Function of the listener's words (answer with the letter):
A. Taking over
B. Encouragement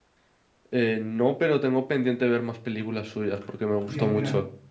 A